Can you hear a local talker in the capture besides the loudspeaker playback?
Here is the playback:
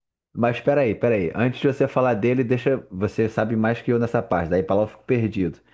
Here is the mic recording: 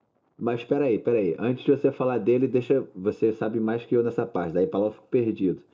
No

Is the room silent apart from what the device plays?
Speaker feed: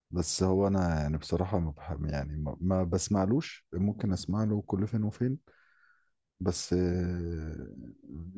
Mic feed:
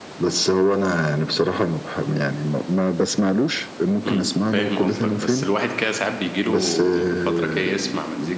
No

